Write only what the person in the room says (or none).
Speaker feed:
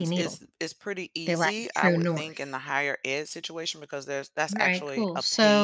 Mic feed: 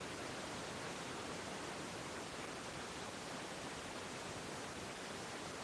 none